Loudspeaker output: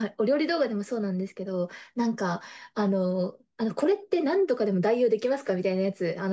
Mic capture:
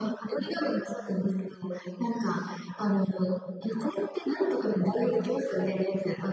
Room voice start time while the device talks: none

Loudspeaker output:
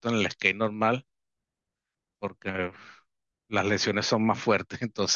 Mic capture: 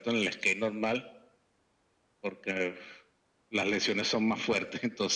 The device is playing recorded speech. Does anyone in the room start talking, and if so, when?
none

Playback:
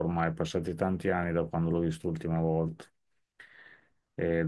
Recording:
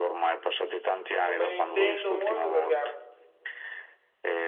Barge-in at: 1.2 s

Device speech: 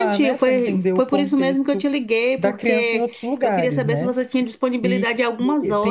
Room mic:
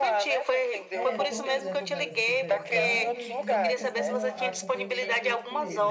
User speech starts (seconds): 0.9 s

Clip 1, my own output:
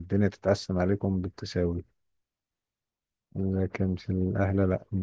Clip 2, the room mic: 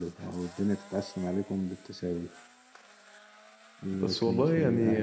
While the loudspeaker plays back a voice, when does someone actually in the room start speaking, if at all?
3.9 s

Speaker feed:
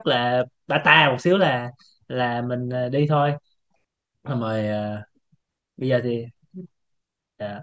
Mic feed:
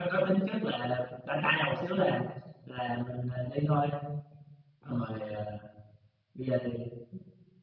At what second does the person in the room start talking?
none

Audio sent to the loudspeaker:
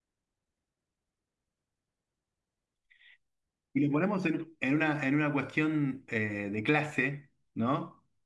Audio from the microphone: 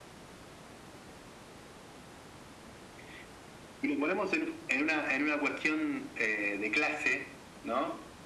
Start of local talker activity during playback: none

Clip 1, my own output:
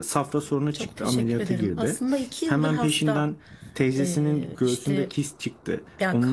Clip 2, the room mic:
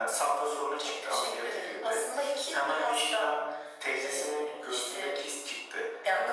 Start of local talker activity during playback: none

